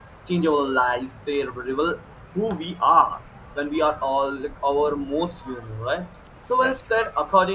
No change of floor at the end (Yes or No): Yes